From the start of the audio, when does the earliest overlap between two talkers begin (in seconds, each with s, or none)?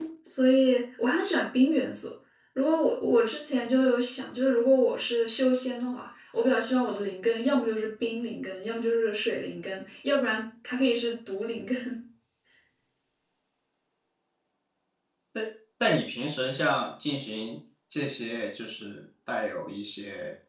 none